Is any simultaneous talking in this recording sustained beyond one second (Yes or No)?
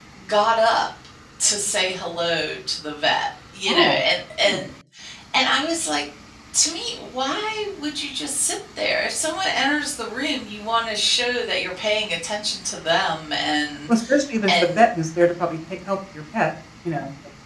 No